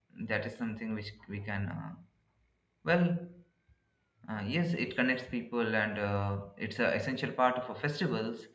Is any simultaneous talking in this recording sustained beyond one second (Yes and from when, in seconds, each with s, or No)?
No